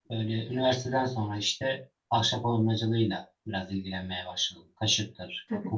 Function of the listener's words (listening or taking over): taking over